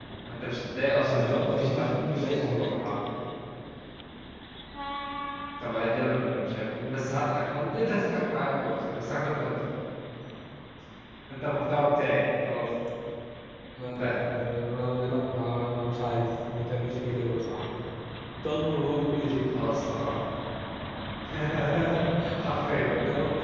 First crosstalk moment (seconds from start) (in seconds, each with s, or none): 0.9 s